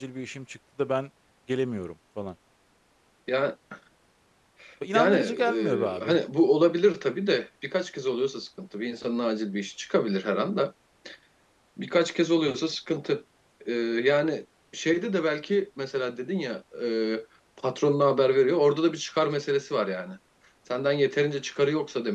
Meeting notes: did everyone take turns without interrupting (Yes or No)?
No